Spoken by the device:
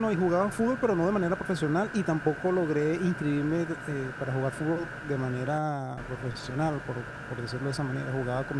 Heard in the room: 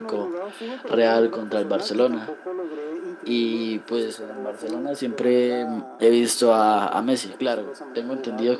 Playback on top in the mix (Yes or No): No